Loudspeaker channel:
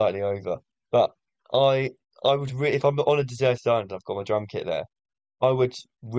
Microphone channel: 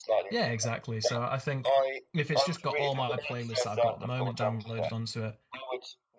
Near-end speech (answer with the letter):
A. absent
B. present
B